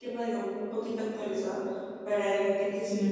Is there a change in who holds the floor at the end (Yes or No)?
No